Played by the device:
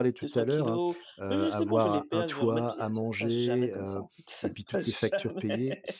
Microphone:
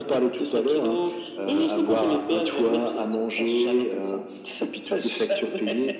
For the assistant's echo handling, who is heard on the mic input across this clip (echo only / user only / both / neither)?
echo only